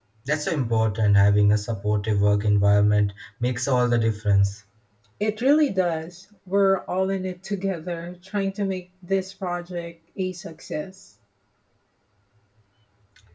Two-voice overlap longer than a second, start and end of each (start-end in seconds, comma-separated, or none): none